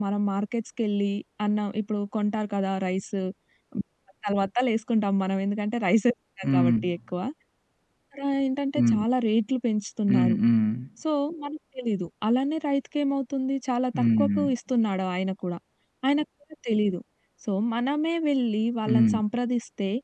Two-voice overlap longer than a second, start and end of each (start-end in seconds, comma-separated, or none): none